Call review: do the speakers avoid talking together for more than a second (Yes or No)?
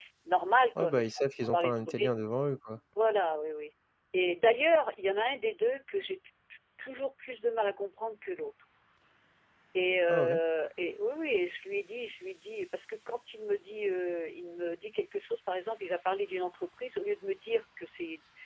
No